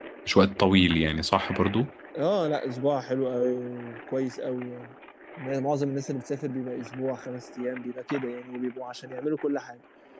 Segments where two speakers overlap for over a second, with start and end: none

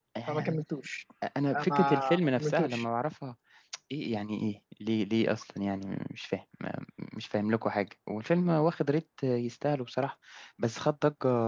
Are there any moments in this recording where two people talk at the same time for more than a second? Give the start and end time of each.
1.5-2.8

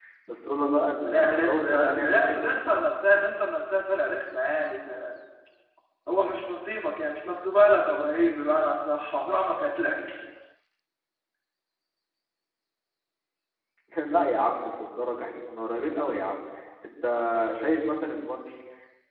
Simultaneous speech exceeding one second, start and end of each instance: 1.0-2.4

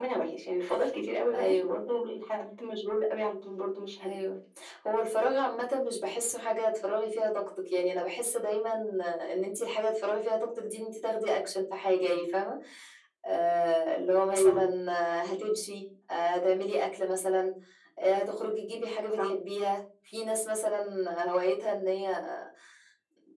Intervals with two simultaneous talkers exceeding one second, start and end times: none

